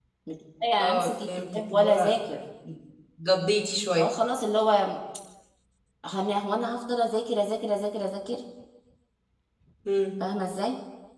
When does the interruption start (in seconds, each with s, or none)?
0.8 s